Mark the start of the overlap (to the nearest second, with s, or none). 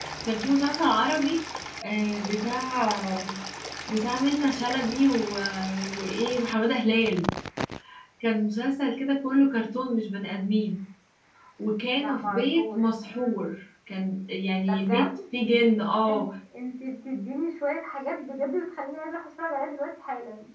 12 s